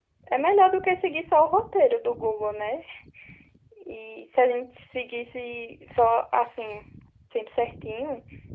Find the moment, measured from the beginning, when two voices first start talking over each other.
none

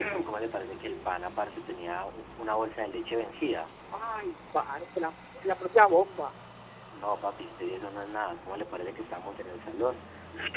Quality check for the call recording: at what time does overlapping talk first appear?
none

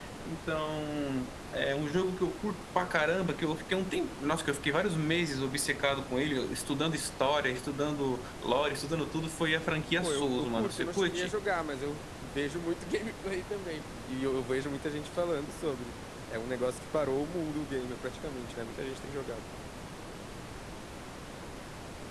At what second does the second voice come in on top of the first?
10.0 s

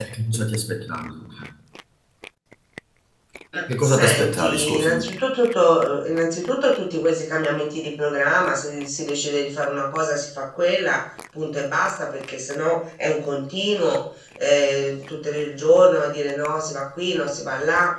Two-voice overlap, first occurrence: 3.8 s

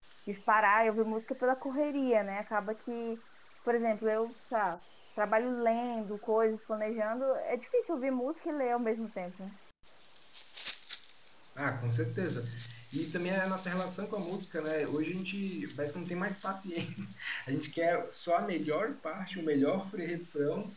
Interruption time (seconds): none

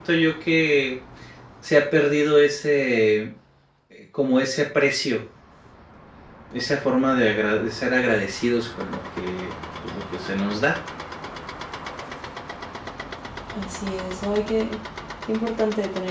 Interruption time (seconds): none

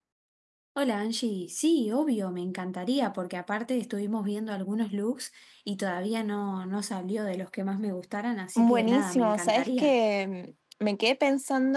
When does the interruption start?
8.6 s

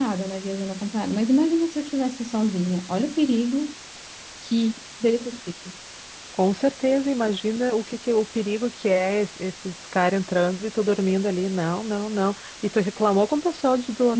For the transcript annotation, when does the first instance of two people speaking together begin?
none

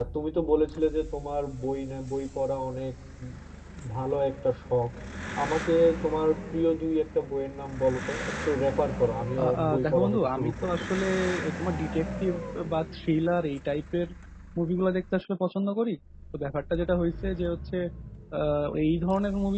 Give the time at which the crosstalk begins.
9.4 s

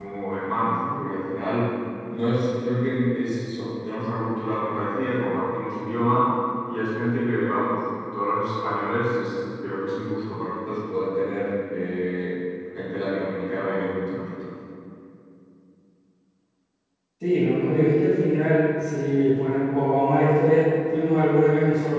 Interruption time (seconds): none

